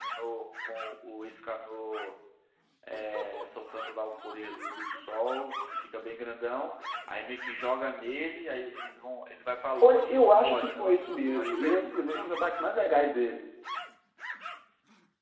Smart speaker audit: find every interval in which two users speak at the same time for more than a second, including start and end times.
9.8-12.2

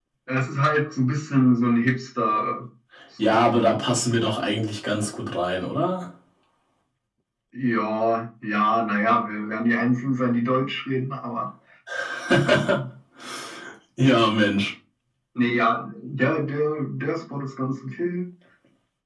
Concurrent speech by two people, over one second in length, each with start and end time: none

